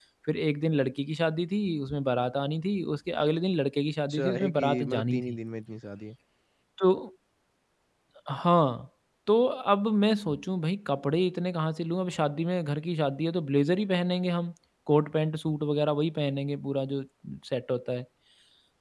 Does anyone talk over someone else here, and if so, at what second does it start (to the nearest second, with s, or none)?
4 s